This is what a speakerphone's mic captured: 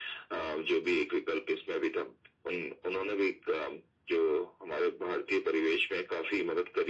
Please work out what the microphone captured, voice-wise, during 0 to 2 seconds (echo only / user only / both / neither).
echo only